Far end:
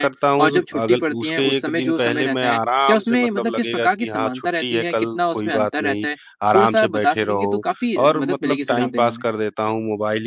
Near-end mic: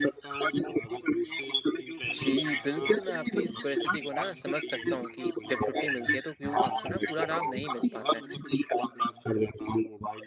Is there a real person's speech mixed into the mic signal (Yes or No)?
Yes